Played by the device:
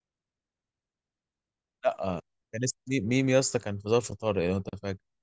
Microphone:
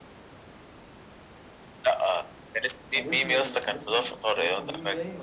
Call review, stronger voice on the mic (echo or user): echo